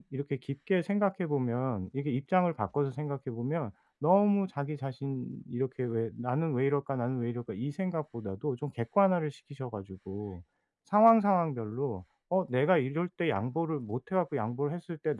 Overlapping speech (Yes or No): No